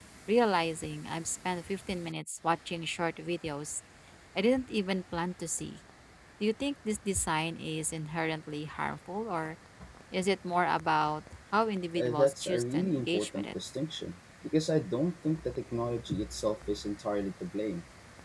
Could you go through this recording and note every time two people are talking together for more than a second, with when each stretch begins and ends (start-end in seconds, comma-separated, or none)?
12.0-13.5